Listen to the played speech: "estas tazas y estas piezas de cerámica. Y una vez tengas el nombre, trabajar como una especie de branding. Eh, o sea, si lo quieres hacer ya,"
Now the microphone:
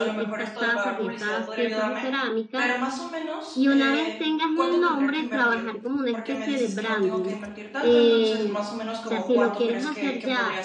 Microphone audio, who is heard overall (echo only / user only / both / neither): both